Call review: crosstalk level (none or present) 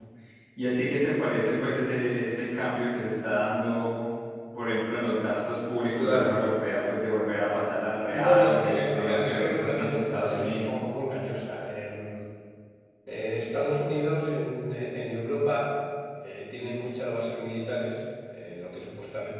present